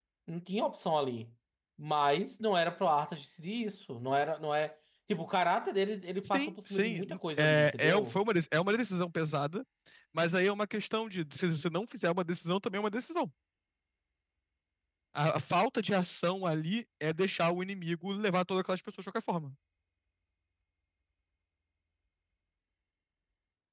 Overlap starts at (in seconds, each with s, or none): 6.2 s